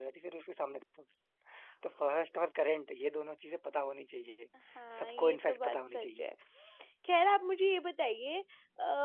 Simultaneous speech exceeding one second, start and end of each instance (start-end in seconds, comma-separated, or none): 5.0-6.2